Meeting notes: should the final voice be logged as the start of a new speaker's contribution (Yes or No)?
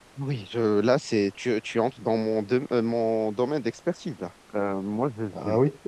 No